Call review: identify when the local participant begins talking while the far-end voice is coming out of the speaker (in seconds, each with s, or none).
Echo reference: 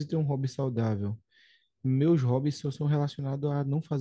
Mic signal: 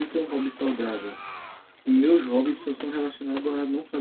none